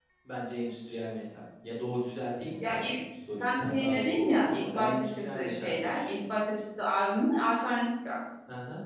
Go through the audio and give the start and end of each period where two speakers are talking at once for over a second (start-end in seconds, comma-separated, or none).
3.4-6.1